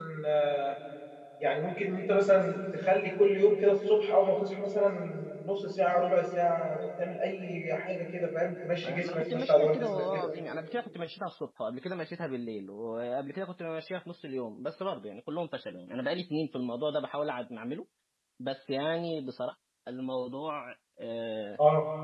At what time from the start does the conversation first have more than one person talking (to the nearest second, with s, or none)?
9 s